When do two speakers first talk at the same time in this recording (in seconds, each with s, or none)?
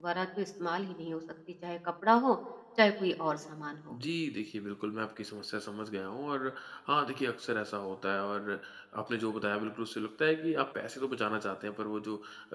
none